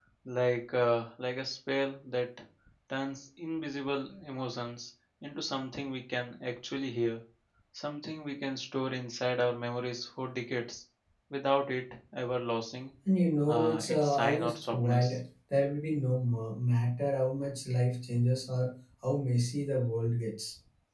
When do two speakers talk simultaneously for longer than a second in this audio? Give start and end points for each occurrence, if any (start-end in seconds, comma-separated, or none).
13.5-15.1